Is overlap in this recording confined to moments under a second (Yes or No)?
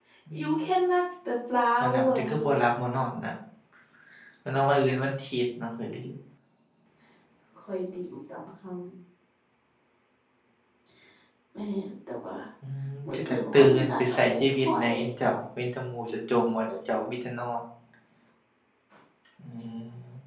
No